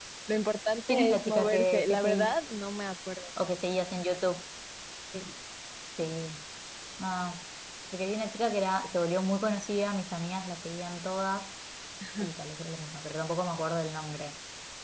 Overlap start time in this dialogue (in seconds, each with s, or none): 0.9 s